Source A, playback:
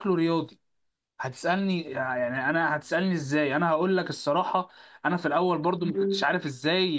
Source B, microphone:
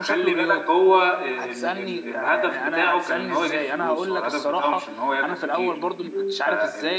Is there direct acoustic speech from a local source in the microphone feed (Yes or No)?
Yes